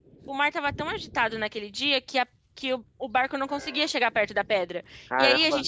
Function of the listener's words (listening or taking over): listening